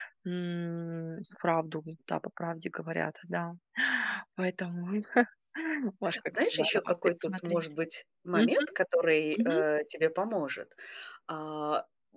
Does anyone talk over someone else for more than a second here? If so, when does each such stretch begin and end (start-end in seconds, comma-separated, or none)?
6.3-7.6